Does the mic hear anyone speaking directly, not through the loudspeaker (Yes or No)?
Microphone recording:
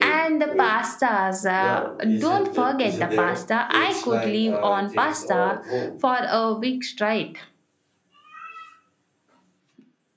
Yes